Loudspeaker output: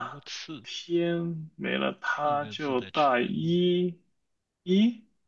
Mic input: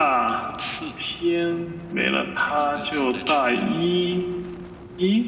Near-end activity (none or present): none